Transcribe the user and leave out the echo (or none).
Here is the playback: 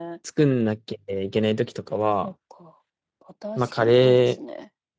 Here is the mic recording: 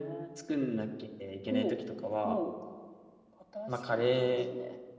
おう、おう。